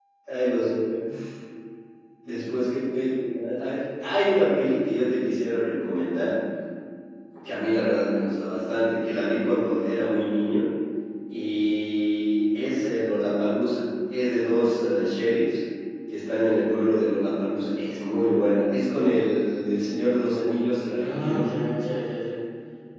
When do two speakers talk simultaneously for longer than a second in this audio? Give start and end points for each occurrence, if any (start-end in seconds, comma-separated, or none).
none